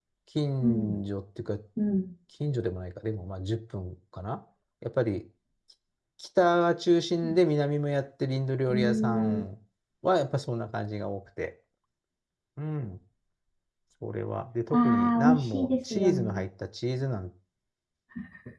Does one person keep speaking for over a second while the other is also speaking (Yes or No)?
Yes